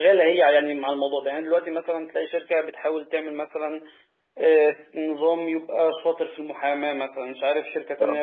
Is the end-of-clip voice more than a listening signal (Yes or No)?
No